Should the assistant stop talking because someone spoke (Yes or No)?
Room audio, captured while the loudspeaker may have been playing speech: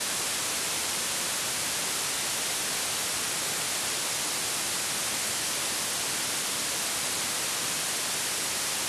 No